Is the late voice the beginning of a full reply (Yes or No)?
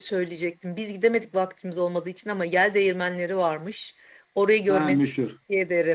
No